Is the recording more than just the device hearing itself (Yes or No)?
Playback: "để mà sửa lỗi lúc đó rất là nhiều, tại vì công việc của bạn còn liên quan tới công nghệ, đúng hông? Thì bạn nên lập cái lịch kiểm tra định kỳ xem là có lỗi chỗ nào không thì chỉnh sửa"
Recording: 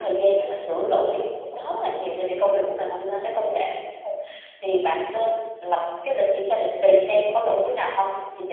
No